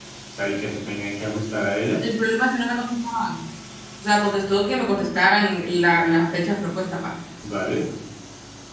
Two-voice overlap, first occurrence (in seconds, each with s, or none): none